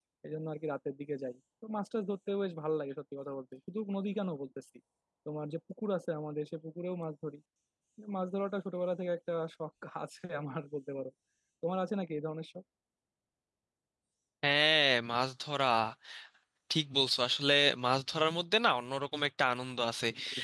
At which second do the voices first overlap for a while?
none

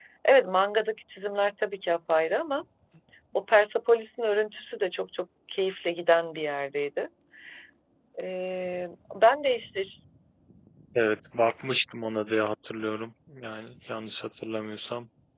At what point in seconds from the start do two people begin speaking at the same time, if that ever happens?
none

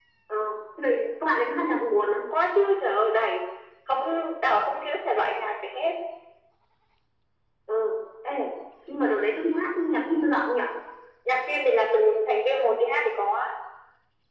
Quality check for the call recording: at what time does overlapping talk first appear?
none

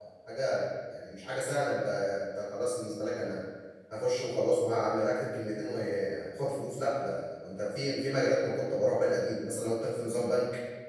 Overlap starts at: none

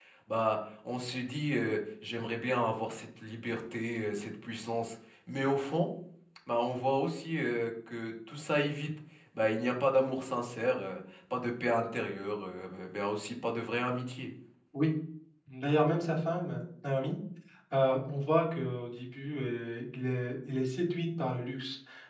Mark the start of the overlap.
none

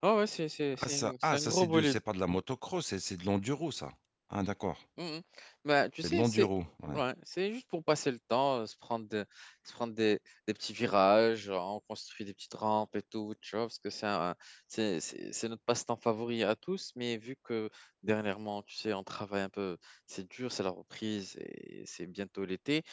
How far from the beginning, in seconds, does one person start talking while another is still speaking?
0.7 s

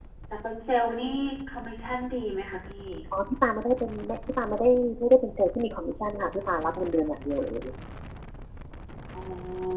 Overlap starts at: none

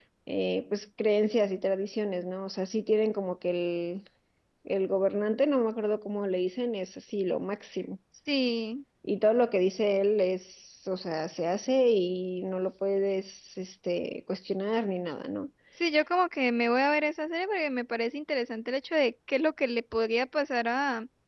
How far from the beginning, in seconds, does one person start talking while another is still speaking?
none

